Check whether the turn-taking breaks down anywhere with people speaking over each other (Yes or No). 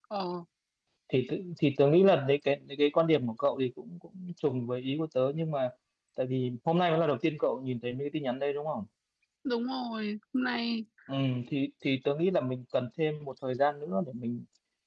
No